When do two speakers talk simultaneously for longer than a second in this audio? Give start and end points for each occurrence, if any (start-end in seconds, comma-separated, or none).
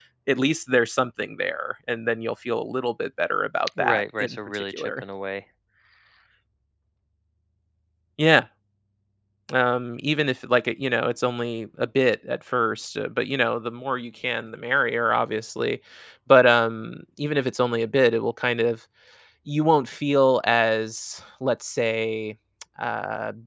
3.8-5.0